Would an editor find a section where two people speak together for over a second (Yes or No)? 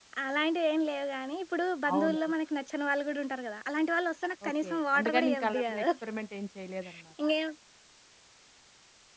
Yes